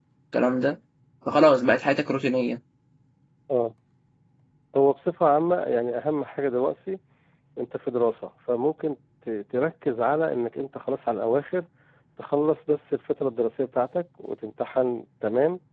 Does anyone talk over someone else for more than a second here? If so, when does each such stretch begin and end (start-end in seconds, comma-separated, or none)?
none